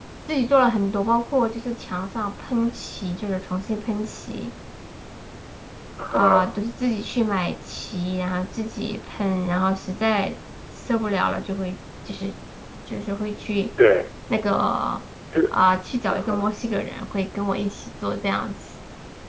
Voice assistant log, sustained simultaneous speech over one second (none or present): none